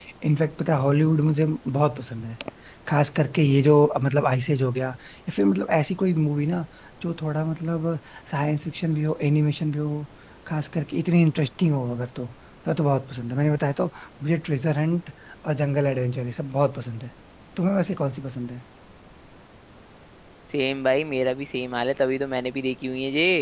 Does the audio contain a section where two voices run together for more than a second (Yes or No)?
No